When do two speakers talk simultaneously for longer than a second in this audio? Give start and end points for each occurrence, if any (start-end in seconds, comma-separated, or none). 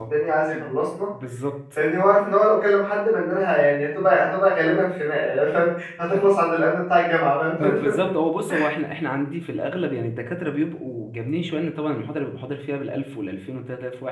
none